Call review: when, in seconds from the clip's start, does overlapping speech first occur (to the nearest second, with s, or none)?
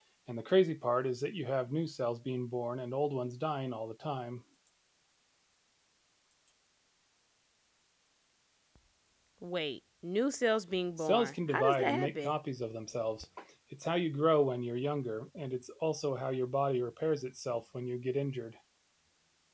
11 s